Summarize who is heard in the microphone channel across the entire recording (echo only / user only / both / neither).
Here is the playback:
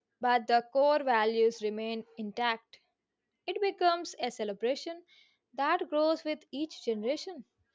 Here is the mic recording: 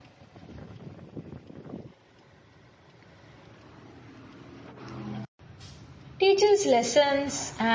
user only